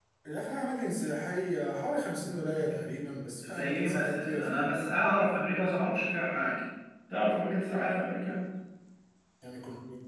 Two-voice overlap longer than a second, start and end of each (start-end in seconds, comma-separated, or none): 3.4-4.7